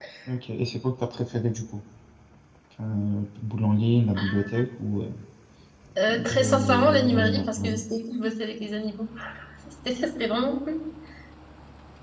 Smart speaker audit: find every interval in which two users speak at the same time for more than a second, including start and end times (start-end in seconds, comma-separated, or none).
6.1-7.8